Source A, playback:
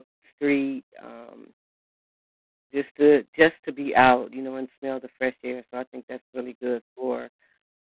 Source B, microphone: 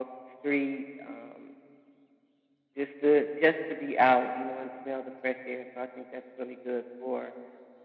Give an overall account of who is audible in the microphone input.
echo only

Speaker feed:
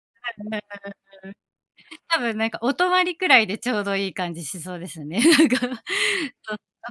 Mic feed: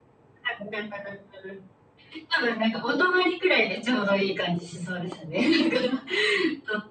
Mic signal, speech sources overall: echo only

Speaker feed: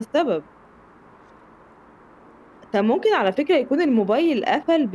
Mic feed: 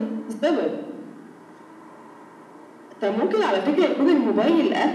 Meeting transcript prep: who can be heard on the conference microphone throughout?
echo only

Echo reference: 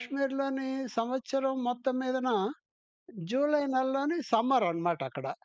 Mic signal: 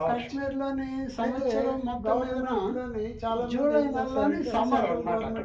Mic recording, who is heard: both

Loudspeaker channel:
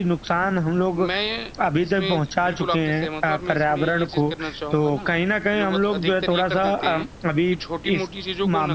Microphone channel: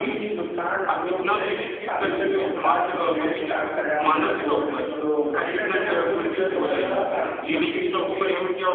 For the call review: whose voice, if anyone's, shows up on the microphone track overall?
both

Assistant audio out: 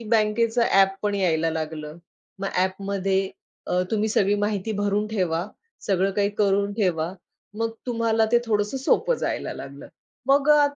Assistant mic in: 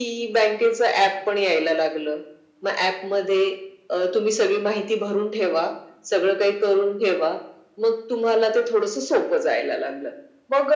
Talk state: echo only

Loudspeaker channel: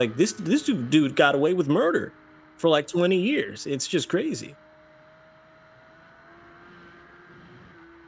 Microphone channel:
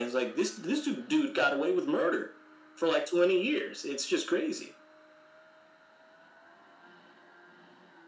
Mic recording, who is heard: echo only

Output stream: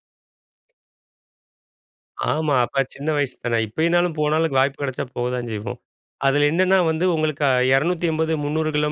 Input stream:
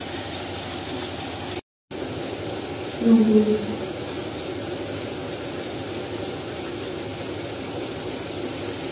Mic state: user only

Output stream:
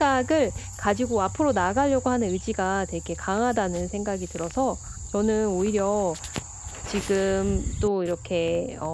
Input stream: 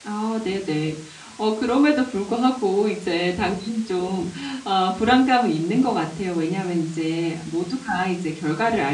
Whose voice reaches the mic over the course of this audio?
user only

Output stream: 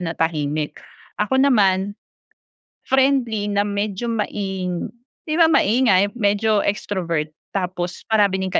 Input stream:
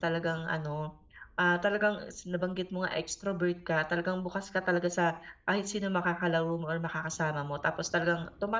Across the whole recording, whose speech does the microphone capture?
user only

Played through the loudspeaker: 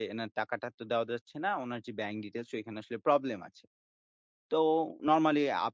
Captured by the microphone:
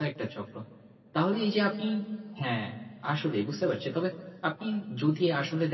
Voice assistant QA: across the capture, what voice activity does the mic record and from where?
user only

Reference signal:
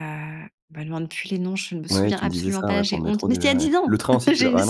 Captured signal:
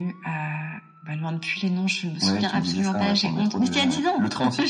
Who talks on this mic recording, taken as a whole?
echo only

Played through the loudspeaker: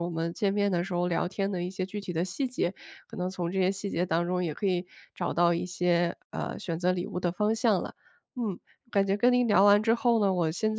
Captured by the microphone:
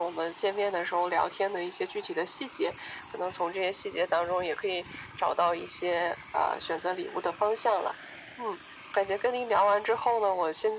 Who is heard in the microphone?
echo only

